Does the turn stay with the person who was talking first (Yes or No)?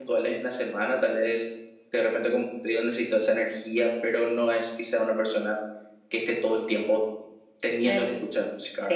No